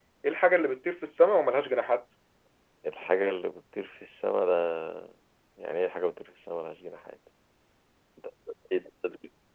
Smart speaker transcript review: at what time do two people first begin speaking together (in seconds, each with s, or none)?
none